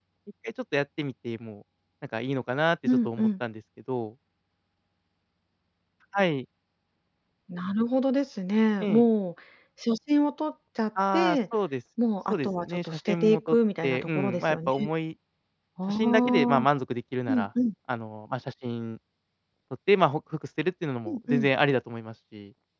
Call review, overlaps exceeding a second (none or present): present